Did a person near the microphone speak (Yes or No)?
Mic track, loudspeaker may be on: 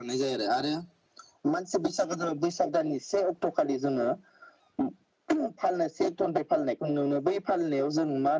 No